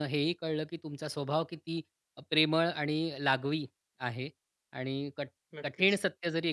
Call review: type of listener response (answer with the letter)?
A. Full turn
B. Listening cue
B